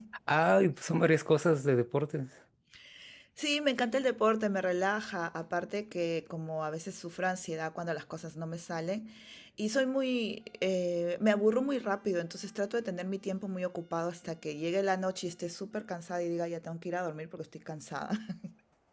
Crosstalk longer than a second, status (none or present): none